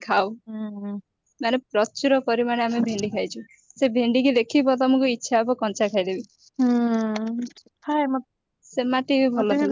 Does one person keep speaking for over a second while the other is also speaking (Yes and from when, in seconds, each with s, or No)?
No